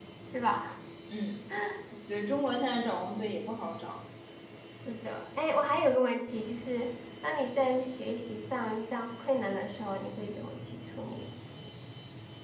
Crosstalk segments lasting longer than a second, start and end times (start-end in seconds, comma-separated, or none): none